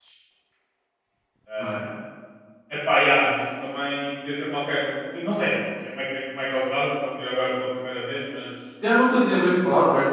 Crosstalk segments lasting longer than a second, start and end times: none

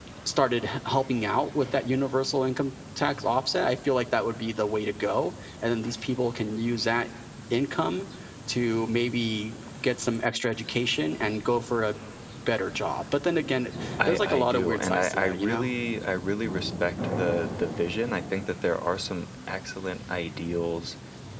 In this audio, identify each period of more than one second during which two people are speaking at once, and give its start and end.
14.1-15.7

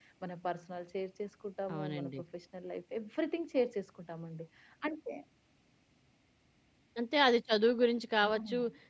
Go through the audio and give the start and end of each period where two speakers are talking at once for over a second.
none

